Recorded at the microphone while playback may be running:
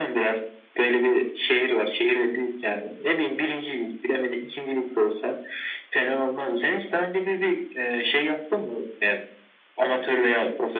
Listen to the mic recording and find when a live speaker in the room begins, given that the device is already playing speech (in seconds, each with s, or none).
none